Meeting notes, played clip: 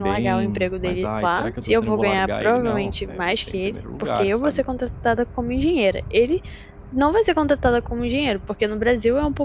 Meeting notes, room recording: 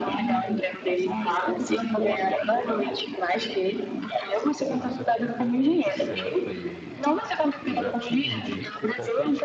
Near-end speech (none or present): present